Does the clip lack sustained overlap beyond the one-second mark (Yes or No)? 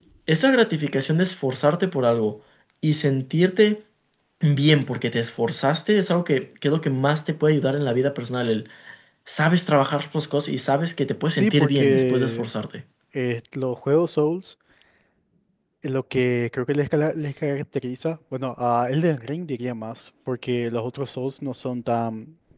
No